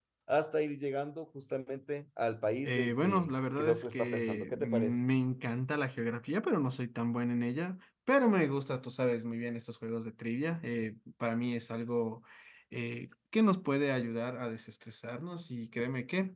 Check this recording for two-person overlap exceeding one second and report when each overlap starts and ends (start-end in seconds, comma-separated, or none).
2.6-5.0